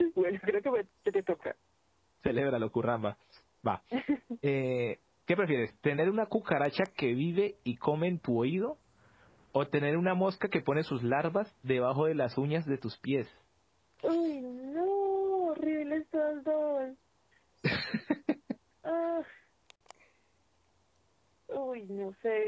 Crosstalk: none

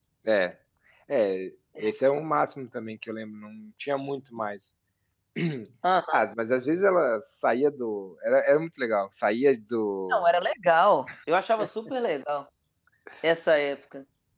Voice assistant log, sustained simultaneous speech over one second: none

